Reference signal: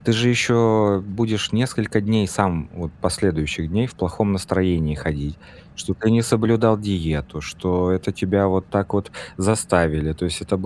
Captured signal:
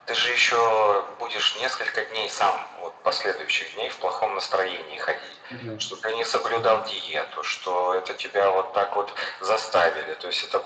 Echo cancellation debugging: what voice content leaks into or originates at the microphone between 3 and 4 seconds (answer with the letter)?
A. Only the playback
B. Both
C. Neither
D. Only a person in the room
A